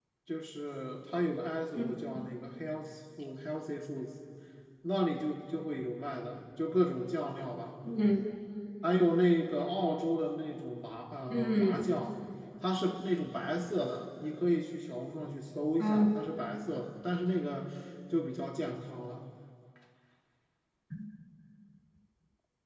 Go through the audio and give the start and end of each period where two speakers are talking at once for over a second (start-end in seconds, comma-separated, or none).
none